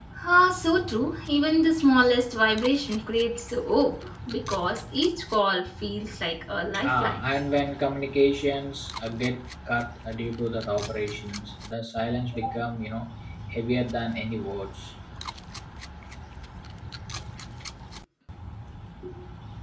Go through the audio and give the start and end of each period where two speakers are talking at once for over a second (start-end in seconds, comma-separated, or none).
none